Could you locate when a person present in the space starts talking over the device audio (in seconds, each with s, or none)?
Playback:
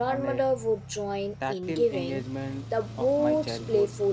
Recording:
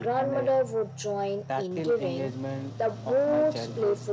none